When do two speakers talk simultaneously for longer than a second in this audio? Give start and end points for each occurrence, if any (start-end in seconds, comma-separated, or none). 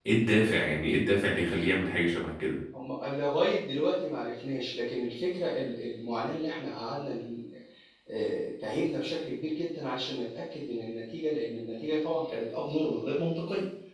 none